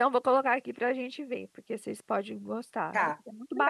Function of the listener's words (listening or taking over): taking over